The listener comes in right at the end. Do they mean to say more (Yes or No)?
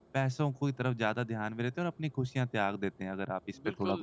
Yes